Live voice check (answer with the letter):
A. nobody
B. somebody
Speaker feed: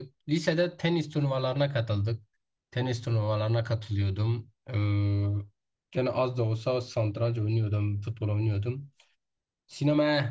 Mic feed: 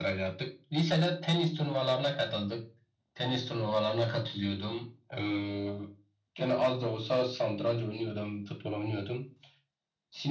A